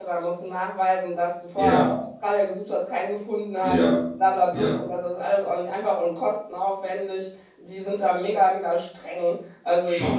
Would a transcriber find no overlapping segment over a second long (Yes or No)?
Yes